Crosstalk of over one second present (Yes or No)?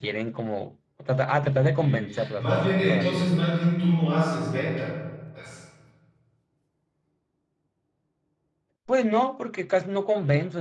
Yes